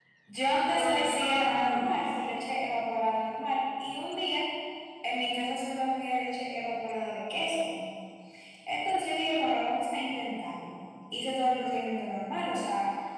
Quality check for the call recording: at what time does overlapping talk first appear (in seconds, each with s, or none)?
0.7 s